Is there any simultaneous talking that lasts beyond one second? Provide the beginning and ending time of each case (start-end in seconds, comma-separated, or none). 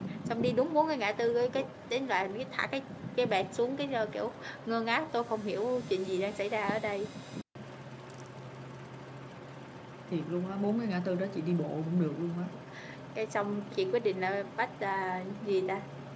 none